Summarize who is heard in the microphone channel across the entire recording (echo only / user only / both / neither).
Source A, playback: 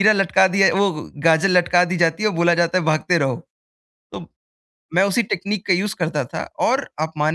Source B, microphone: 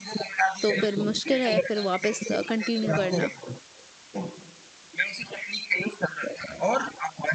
both